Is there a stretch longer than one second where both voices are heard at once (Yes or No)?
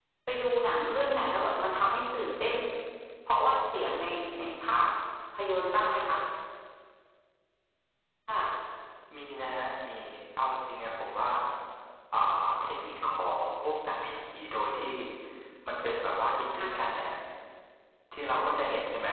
No